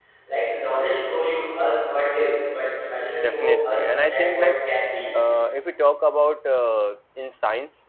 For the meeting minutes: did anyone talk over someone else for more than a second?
Yes, from 3.2 s

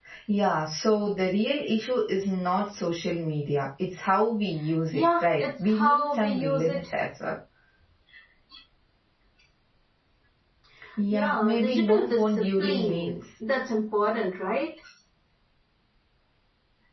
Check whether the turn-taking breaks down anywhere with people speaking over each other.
Yes, from 4.9 s

